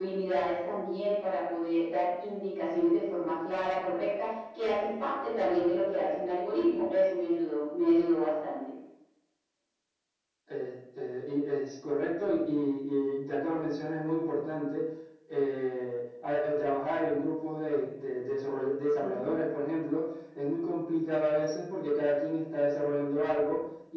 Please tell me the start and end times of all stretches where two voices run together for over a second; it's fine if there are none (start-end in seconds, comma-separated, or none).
none